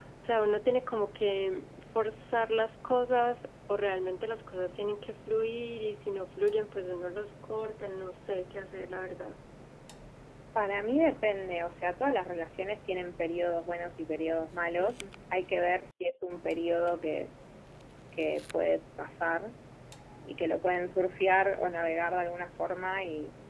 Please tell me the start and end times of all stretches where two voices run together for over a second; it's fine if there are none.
none

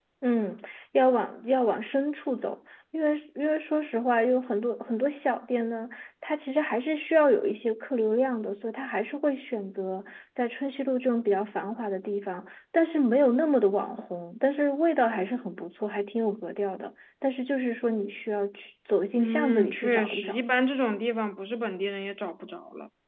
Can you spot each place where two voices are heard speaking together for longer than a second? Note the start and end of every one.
19.2-20.4

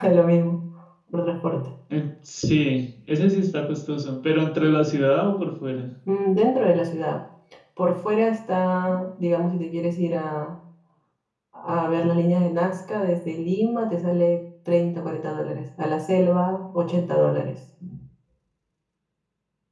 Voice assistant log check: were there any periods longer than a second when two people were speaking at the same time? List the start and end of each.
none

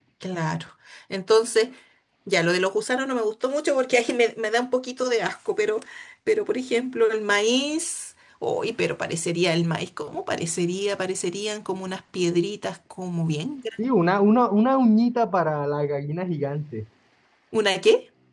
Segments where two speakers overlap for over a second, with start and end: none

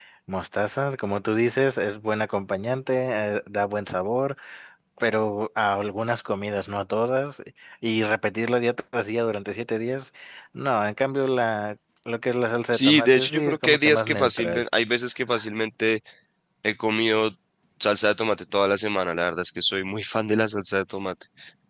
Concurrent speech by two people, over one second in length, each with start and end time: 12.7-14.6

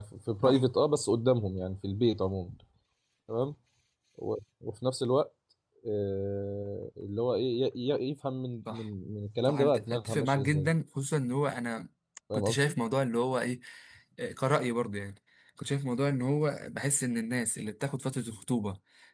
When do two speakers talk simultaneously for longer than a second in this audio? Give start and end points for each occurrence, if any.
9.4-10.7

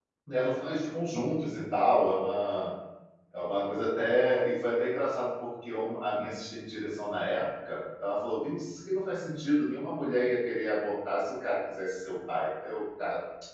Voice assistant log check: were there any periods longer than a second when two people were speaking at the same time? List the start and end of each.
none

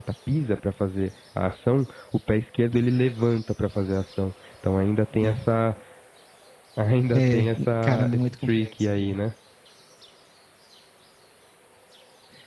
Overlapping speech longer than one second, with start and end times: 7.1-9.2

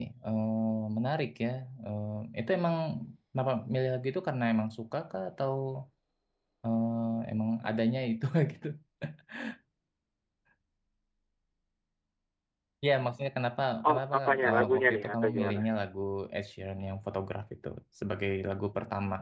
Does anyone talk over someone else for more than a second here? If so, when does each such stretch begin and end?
13.9-15.6

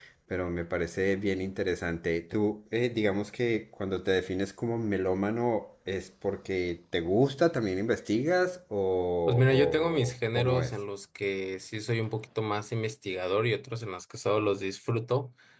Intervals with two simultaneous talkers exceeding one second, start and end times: 9.3-10.7

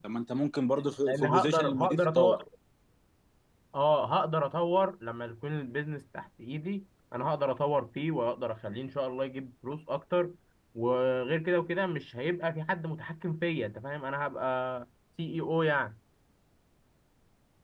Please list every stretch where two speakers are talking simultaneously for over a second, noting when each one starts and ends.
1.1-2.4

